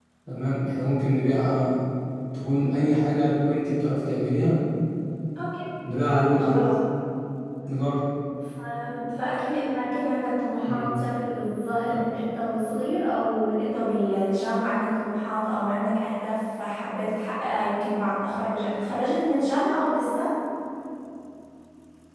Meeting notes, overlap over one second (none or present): none